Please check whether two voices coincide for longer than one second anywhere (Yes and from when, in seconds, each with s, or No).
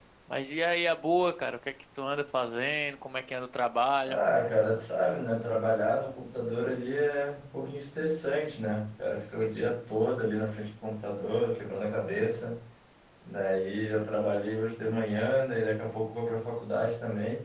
No